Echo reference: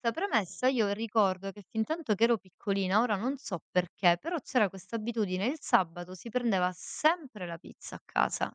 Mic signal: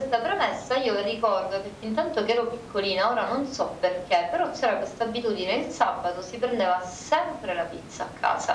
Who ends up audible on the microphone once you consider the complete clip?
echo only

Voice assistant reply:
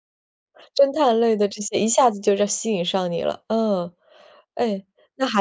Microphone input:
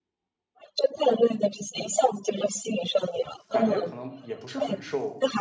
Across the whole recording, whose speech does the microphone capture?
both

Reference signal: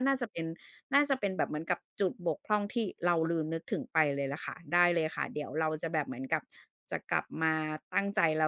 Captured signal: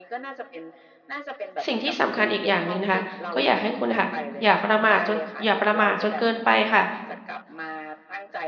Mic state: both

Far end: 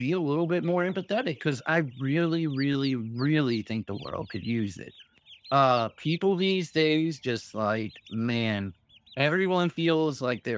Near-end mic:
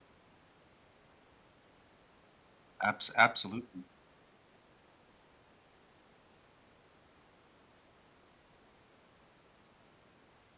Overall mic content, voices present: user only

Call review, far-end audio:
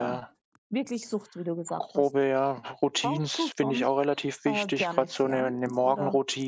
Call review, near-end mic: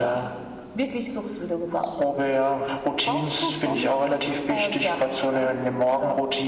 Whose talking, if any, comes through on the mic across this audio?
both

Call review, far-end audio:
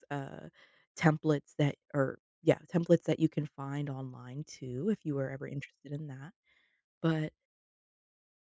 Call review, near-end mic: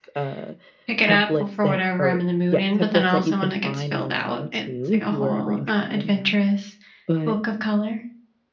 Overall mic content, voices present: both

